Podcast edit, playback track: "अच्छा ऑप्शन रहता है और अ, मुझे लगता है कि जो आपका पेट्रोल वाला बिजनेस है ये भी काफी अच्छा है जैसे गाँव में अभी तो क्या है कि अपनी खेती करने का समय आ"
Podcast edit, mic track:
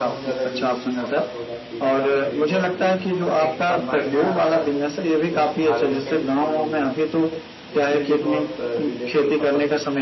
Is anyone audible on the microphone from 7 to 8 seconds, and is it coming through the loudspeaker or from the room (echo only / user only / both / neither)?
both